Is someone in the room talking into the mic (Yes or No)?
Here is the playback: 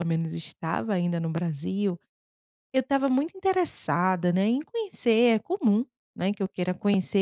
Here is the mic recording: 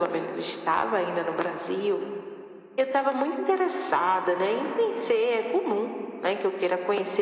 No